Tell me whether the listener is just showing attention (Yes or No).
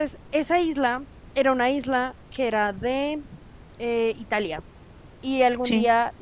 Yes